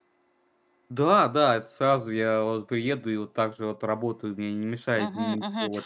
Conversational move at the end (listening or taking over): taking over